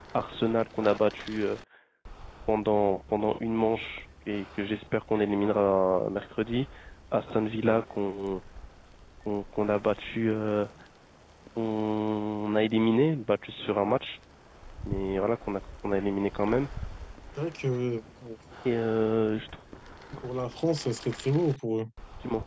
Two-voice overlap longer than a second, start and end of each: none

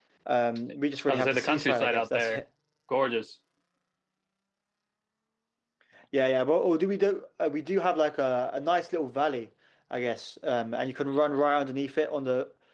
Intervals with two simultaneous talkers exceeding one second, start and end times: 1.1-2.4

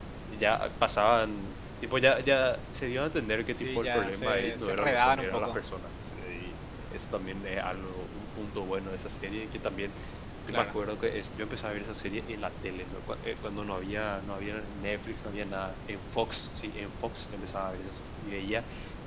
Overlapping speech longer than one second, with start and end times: 3.5-5.6

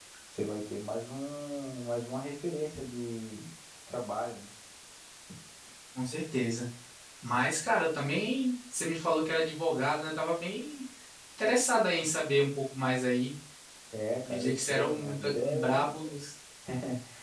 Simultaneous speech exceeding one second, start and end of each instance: 14.2-15.8

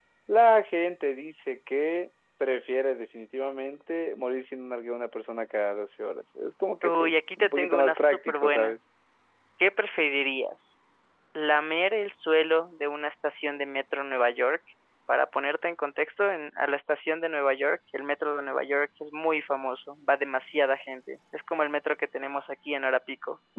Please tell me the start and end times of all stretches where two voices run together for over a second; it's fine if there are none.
6.8-8.8

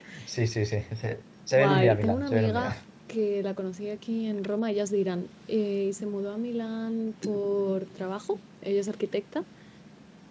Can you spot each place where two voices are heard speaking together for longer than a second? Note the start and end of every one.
1.5-2.7

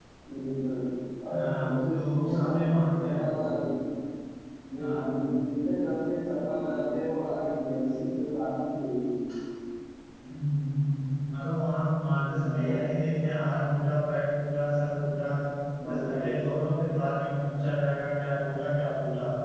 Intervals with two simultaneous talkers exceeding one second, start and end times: 1.3-3.2

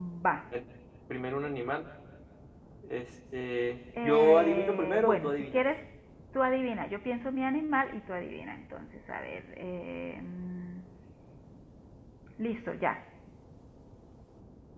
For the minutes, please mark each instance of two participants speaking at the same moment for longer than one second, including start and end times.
4.0-5.6

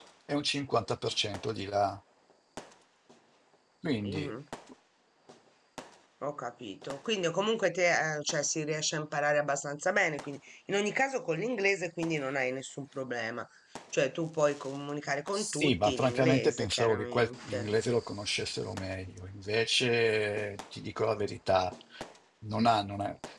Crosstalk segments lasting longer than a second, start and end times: 15.3-17.7

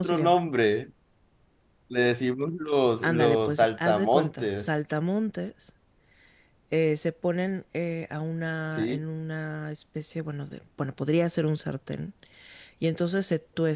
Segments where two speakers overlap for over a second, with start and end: 3.0-4.7

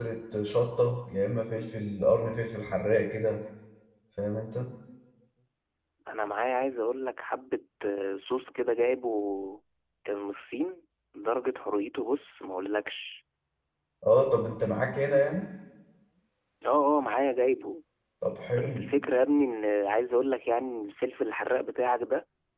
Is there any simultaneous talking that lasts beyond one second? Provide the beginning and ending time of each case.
none

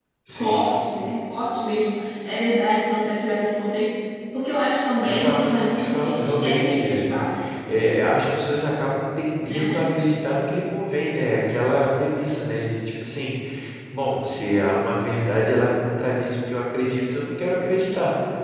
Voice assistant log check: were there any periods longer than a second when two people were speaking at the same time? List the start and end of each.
5.0-7.2

